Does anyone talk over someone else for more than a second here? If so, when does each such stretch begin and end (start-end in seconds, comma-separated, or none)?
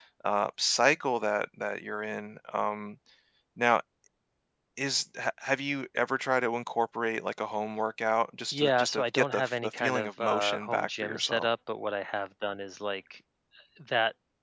8.5-11.5